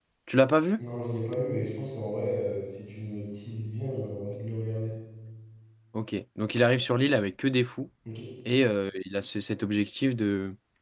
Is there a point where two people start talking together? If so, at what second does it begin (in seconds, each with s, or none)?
none